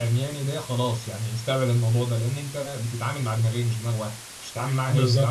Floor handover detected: Yes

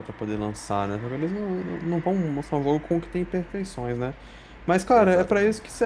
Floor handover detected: No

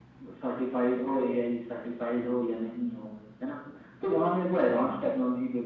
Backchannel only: Yes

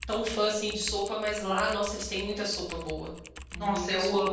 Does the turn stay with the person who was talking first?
No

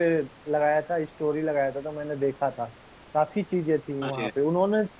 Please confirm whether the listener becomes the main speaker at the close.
No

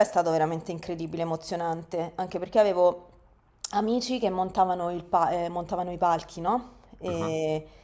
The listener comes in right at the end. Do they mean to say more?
No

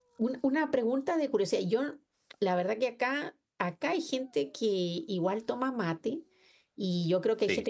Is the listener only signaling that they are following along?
Yes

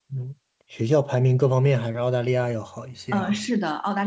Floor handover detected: Yes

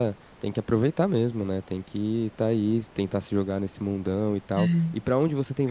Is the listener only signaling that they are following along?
Yes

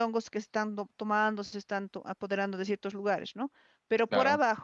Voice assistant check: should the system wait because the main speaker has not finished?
Yes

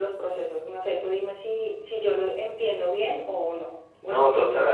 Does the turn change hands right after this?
Yes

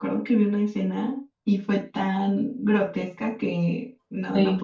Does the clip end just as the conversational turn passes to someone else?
No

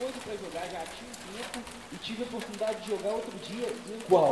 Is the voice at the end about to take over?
No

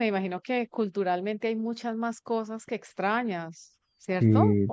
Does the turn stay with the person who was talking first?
No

